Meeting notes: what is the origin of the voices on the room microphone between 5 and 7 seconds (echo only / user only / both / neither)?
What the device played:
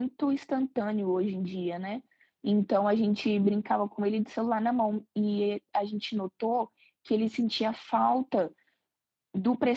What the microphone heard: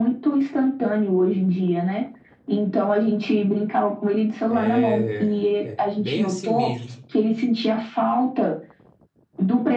both